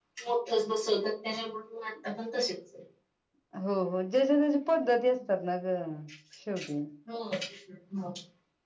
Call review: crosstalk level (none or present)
none